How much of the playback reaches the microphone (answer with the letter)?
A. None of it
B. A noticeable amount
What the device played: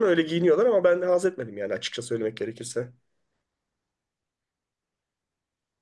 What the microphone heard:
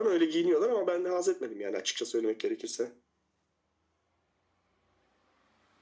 B